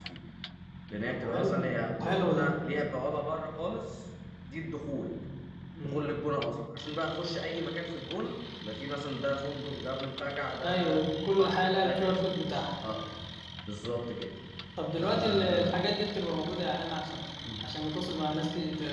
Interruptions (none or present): present